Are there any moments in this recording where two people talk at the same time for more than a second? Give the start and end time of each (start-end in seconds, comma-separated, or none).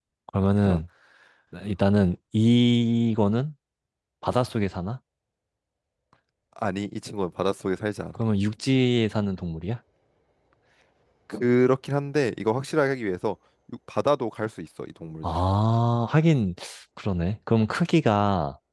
none